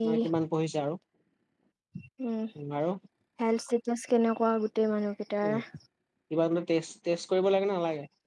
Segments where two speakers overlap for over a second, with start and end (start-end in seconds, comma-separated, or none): none